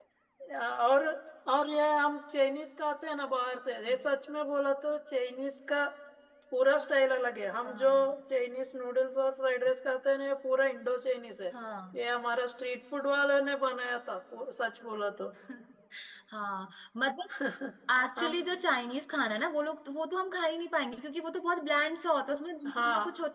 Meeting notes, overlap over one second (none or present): none